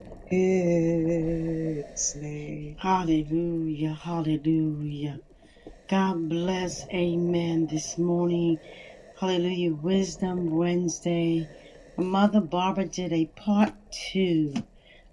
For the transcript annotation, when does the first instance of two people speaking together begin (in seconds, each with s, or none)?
none